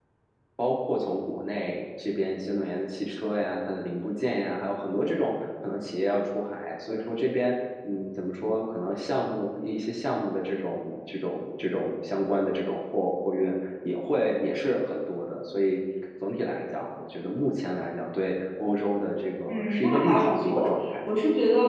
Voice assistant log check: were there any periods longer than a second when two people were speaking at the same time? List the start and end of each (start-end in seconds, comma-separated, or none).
19.5-20.9